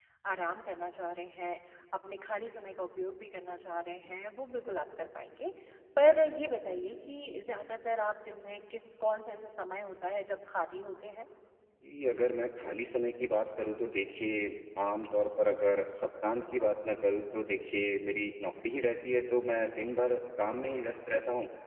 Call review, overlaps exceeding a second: none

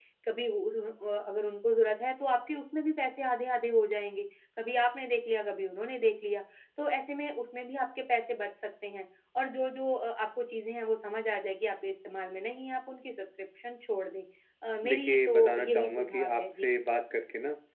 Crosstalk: present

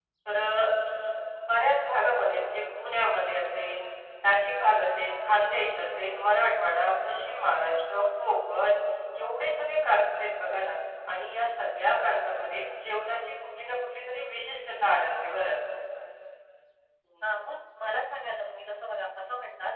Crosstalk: none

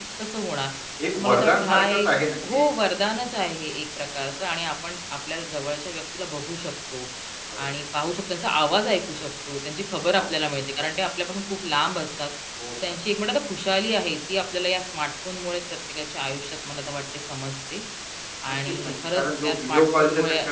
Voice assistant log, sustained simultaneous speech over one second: present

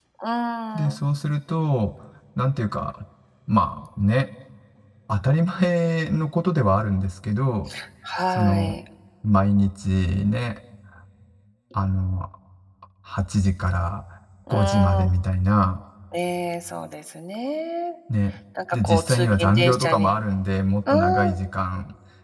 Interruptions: present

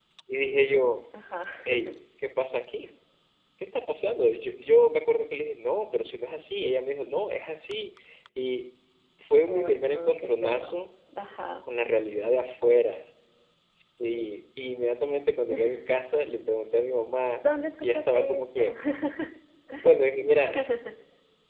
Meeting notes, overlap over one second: present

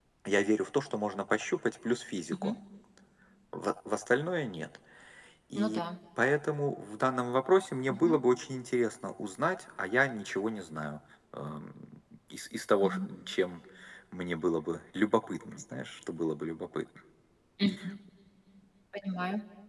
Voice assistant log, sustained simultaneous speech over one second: none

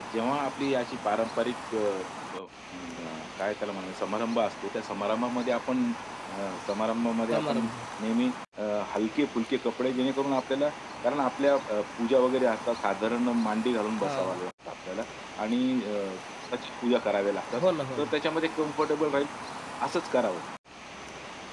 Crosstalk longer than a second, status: none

